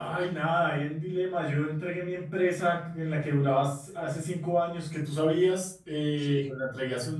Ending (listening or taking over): listening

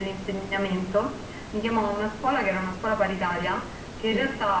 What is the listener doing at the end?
listening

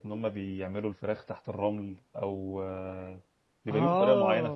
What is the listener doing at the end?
taking over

